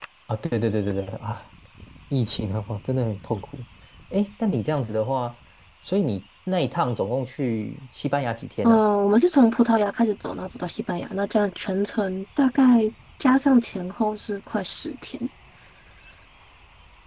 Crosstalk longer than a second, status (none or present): none